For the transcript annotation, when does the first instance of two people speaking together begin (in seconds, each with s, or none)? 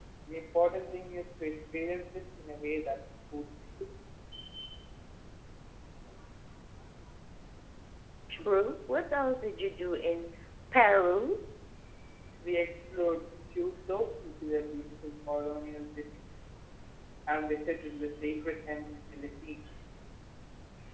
none